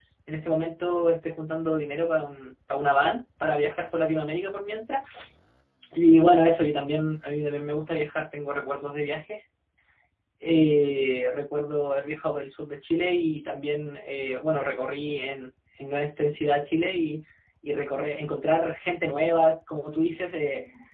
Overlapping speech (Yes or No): No